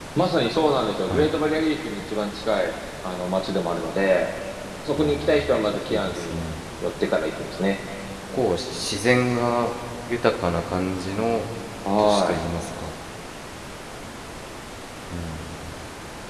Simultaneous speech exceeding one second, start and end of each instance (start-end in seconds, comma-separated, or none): 5.0-6.4